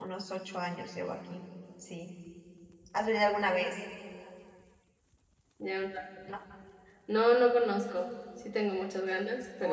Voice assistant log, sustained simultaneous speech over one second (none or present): none